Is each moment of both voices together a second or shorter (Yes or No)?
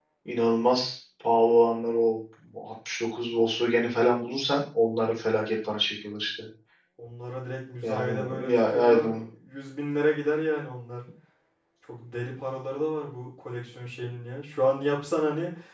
No